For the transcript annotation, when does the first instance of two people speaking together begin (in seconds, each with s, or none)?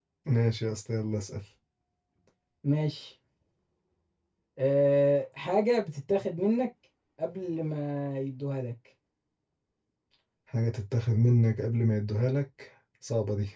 none